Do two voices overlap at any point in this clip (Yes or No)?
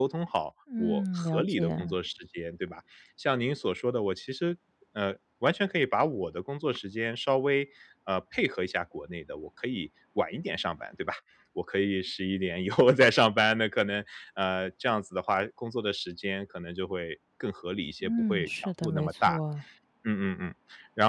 Yes